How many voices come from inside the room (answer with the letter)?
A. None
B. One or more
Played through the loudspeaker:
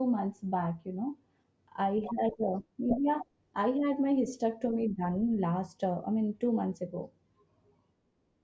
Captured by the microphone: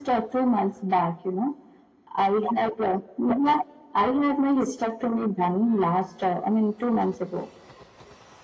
A